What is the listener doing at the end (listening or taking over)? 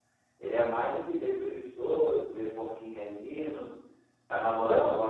listening